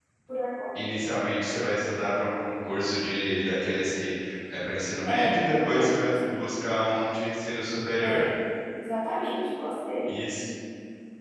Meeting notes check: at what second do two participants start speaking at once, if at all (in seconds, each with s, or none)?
5.1 s